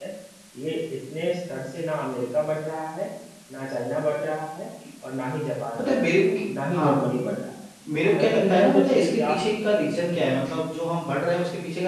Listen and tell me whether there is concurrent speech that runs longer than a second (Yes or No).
Yes